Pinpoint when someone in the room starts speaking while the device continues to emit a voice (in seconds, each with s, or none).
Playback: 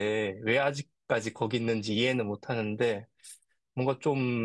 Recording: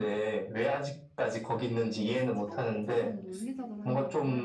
2.3 s